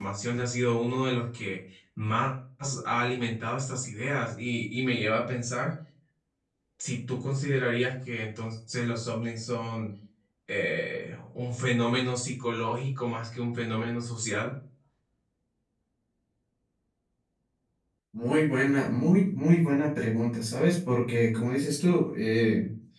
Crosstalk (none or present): none